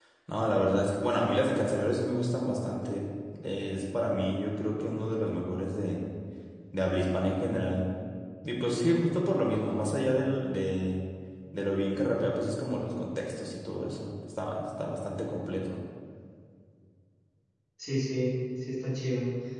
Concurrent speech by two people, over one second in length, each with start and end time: none

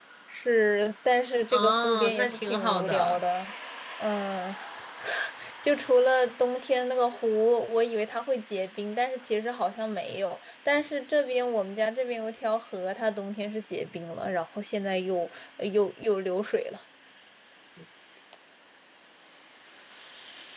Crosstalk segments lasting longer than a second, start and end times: 1.5-3.2

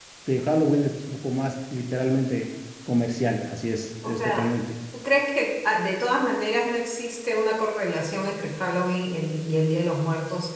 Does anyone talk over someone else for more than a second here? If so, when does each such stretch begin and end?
none

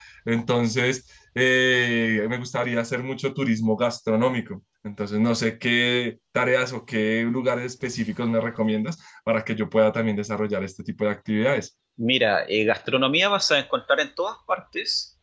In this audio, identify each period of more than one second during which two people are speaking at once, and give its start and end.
none

